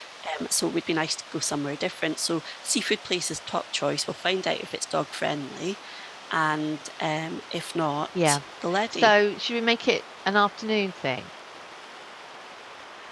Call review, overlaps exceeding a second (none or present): none